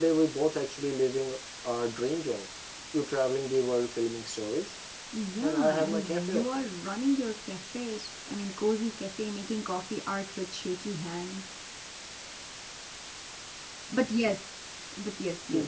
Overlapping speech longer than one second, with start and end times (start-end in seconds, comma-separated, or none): 5.4-6.6